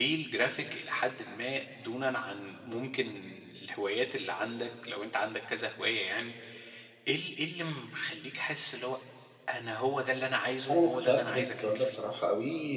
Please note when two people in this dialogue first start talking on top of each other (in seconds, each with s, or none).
10.7 s